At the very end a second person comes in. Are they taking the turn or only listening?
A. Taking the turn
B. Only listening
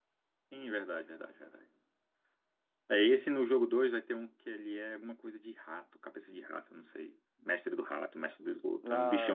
B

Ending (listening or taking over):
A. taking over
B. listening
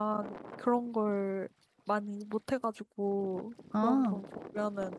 B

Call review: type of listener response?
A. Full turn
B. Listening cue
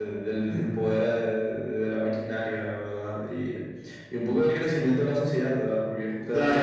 A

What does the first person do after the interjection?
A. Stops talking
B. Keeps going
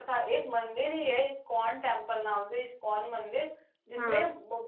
B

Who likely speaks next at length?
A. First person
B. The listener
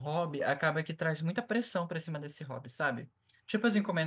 A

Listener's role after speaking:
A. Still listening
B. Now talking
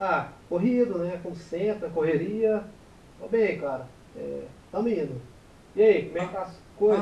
B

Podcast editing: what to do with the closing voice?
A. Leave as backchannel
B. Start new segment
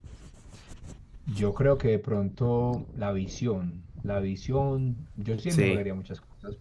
A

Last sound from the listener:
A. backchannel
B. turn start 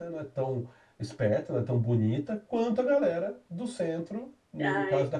B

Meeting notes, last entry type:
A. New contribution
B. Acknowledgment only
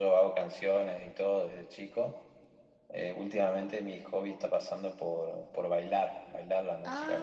B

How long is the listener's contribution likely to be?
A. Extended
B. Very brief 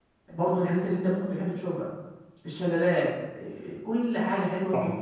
A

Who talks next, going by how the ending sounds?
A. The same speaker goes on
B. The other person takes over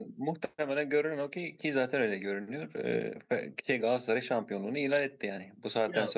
B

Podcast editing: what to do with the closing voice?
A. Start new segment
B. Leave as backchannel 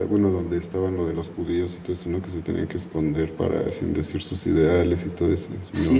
A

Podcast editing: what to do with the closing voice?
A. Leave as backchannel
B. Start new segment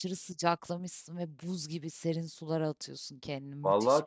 B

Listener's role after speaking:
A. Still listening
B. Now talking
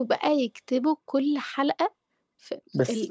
B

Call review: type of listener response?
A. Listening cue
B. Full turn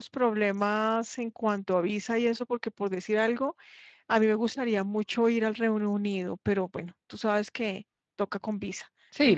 B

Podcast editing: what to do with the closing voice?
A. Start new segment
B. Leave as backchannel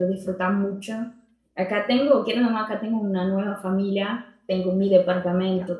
B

